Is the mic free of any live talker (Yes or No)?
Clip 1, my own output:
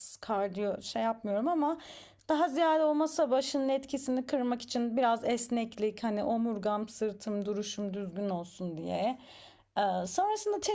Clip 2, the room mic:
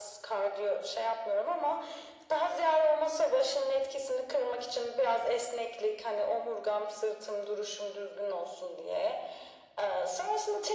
Yes